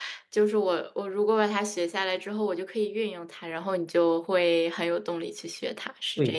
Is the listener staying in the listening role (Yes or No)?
No